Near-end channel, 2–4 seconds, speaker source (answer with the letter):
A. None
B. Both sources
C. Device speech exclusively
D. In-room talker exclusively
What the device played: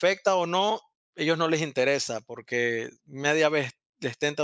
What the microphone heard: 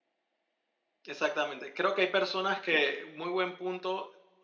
D